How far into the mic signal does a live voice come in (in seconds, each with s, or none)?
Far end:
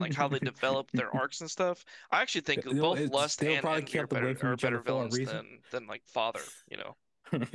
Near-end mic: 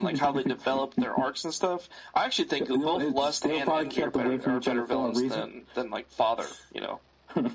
none